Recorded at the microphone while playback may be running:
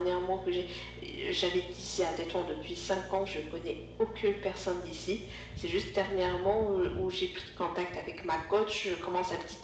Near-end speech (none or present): none